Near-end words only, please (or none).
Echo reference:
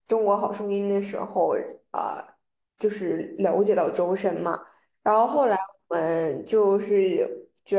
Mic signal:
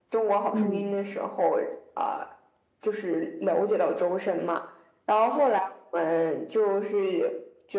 嗯